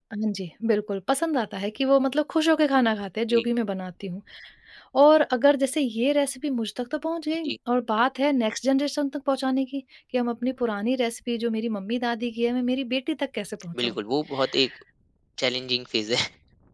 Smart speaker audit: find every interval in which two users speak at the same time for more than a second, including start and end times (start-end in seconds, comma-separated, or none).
none